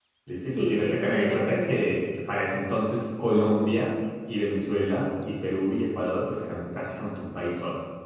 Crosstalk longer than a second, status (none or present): present